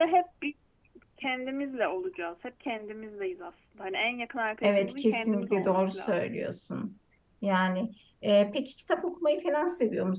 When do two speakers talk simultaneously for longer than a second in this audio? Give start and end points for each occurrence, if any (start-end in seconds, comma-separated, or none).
4.6-6.2